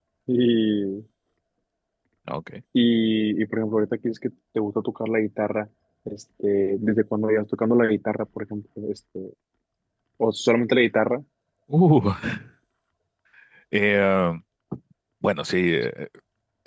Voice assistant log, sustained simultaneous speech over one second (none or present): none